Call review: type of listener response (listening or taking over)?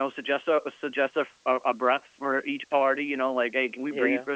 listening